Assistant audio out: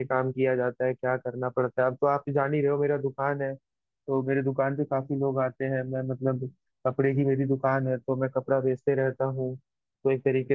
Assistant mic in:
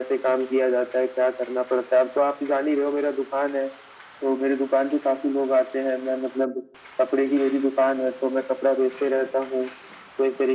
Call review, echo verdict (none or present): present